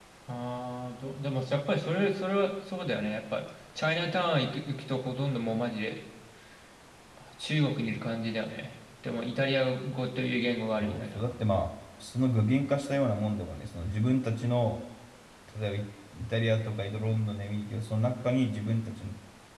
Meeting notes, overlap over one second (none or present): none